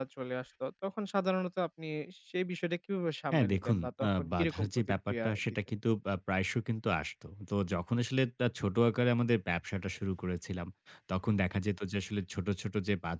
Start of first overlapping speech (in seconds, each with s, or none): 3.3 s